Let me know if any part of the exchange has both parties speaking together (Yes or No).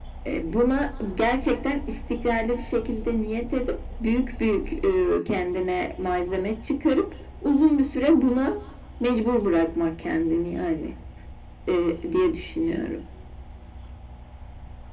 No